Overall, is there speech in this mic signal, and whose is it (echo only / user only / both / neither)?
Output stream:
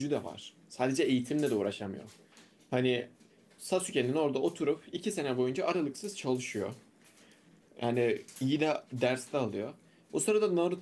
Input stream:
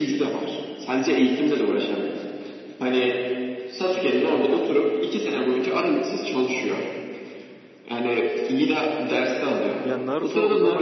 both